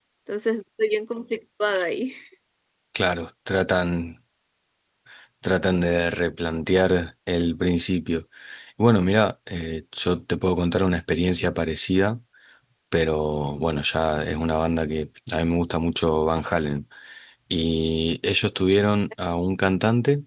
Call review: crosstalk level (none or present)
none